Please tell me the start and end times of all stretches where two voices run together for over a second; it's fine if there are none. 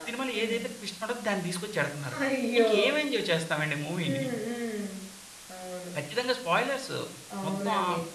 none

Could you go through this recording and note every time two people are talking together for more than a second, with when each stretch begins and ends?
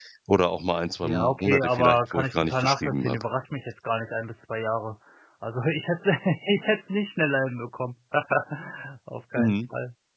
1.0-3.2

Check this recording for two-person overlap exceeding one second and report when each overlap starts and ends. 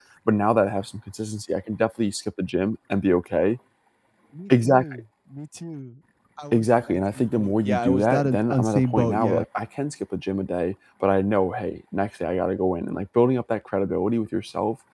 6.5-9.4

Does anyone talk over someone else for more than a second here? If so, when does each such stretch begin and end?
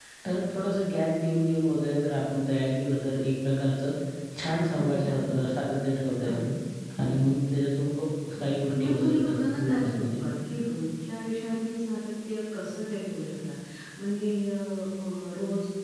8.4-10.2

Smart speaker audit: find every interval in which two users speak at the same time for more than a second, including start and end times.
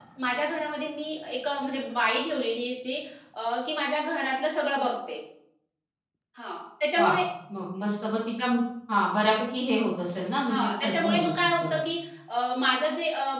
10.5-11.8

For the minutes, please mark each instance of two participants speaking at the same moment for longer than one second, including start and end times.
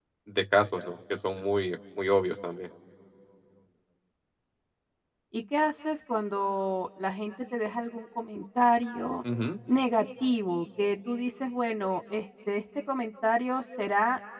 none

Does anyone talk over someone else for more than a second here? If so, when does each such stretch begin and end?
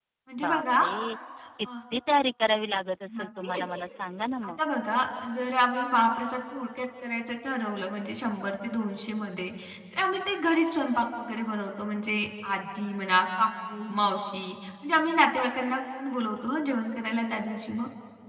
none

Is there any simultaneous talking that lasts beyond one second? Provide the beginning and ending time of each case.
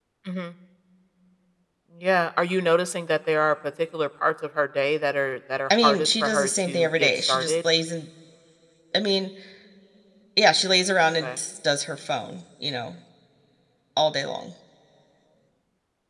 5.8-7.6

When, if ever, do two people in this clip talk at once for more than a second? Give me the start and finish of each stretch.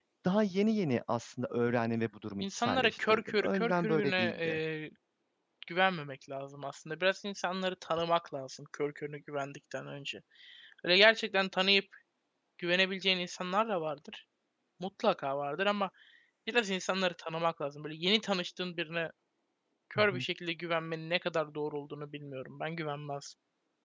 2.4-4.6

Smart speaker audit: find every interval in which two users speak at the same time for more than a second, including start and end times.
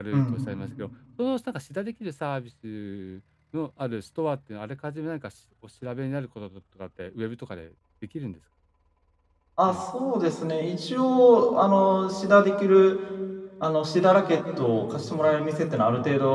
none

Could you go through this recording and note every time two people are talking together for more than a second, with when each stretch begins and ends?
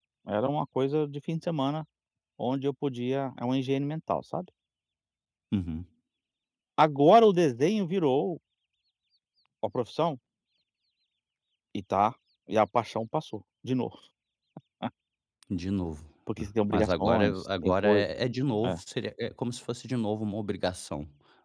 16.7-18.0

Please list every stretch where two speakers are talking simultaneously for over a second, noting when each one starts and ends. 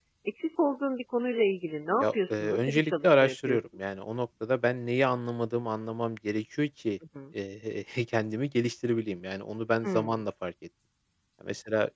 2.0-3.6

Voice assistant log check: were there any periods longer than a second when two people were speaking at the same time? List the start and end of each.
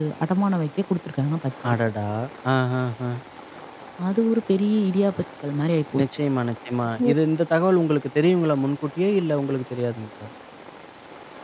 none

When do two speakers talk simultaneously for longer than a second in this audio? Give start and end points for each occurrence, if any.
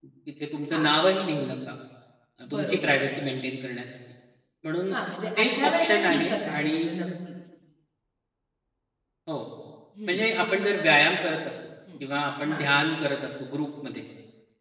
5.4-6.8

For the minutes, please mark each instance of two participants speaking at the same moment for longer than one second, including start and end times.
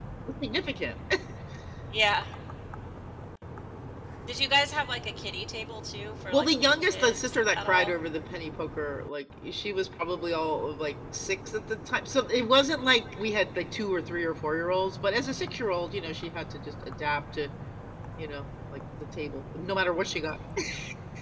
6.3-7.9

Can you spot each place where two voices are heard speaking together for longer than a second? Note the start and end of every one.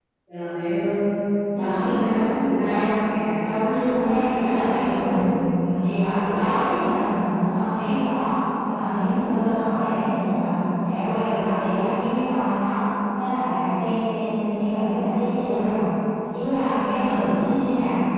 3.4-5.3

